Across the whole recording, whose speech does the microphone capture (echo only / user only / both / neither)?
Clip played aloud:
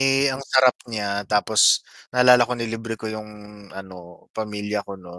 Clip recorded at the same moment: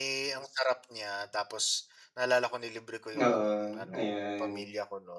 both